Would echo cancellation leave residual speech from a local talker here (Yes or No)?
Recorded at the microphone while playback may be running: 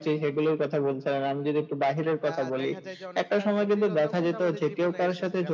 Yes